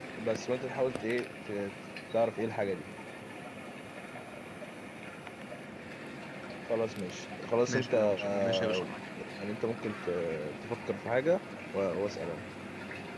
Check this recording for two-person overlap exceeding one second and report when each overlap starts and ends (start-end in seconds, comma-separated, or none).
7.7-8.9